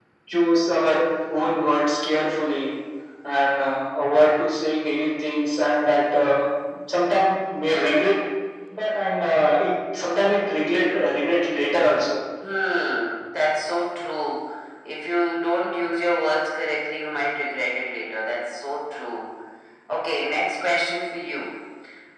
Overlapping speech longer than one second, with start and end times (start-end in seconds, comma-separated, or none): none